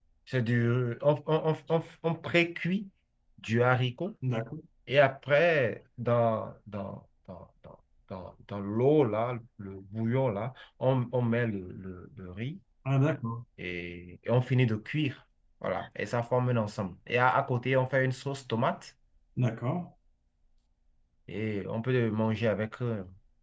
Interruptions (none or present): none